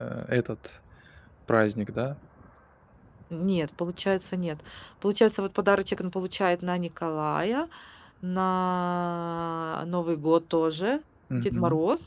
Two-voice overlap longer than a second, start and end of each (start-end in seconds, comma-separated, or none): none